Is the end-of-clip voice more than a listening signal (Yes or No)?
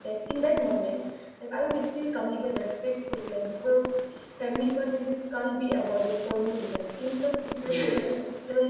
No